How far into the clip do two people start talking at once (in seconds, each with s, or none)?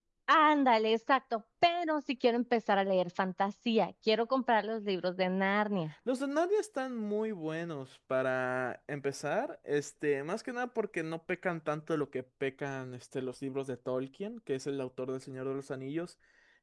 none